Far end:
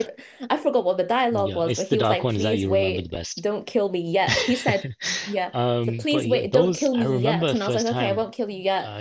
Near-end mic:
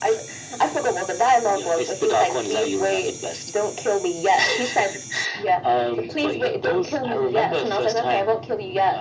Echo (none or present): present